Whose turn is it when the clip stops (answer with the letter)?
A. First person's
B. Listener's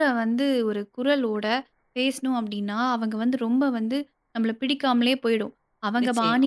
A